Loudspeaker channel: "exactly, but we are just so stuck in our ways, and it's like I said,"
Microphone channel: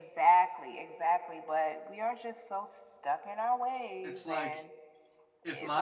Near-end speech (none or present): present